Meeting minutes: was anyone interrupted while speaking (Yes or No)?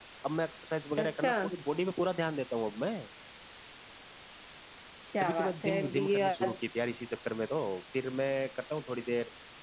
Yes